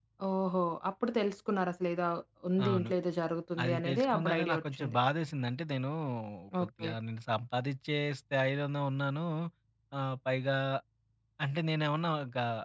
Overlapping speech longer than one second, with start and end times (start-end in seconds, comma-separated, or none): 3.6-5.0